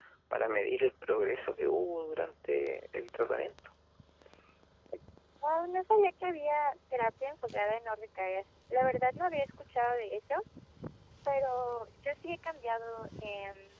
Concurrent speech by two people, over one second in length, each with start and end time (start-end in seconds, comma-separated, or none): none